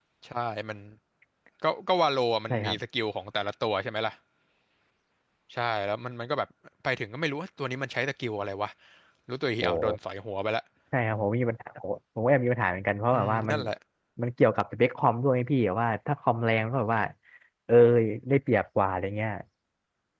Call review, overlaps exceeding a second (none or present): none